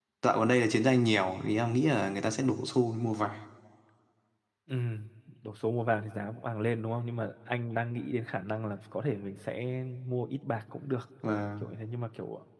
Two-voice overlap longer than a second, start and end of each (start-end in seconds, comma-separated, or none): none